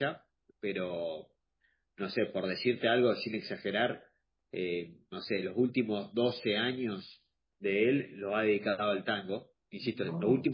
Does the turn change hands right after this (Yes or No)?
No